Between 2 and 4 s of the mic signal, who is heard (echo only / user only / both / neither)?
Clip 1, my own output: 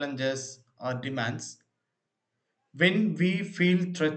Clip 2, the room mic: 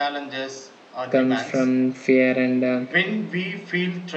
both